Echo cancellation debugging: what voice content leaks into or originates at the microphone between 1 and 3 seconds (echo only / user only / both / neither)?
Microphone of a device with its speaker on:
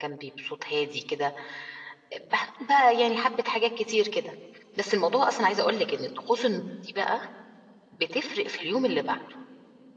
user only